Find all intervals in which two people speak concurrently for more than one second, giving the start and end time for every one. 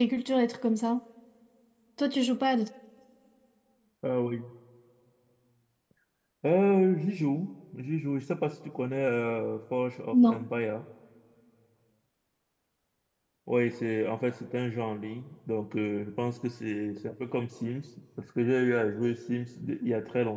none

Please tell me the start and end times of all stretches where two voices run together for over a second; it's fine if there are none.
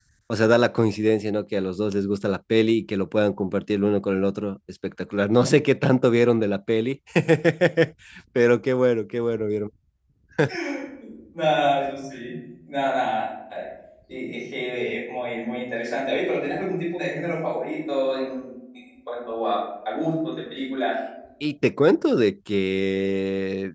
none

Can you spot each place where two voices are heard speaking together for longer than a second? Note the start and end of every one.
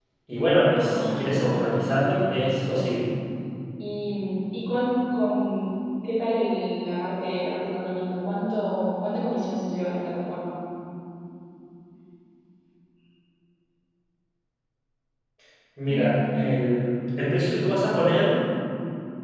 0.8-3.0

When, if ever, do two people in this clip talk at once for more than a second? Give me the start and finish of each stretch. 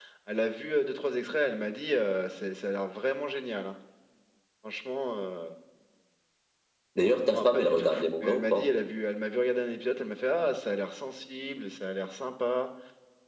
7.3-8.7

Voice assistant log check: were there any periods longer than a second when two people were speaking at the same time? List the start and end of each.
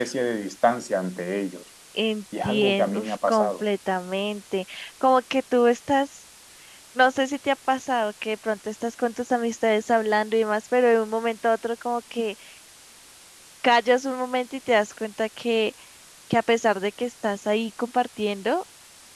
2.4-3.6

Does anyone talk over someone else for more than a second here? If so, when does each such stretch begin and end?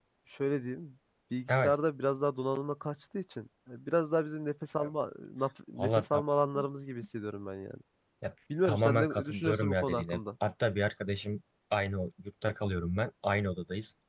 8.7-10.2

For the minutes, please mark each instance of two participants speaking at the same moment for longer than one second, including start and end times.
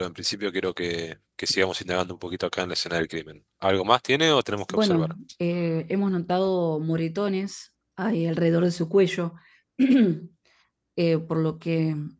none

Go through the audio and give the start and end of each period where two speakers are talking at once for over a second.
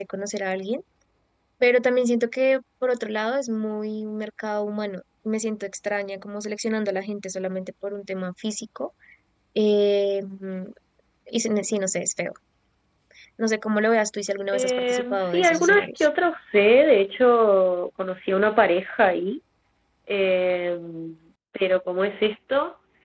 14.5-16.1

